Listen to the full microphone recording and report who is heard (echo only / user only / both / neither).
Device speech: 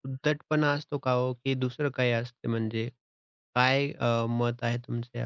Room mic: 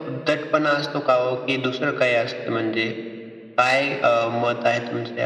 echo only